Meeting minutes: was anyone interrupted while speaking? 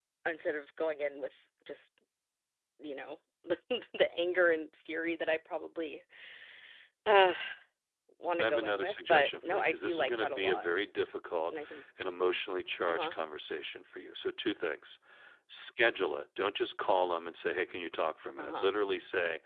Yes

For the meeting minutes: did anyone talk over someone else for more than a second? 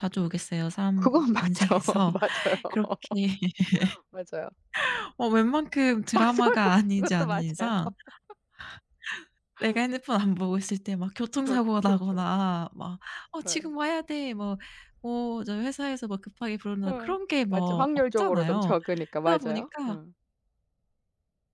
Yes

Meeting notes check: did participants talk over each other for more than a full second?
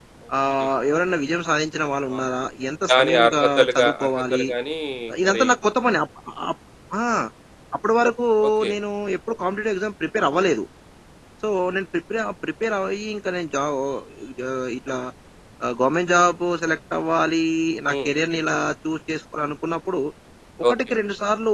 Yes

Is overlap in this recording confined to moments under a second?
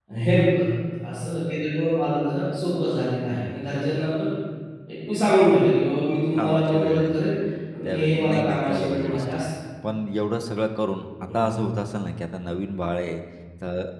No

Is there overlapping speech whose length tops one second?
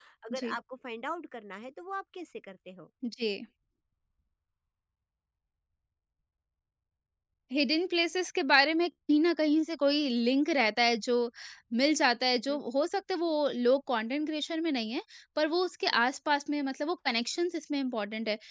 No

